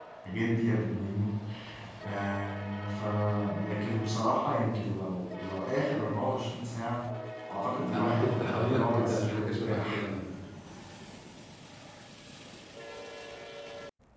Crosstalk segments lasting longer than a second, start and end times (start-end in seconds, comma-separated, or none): 7.9-10.0